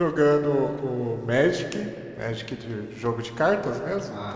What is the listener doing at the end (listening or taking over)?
listening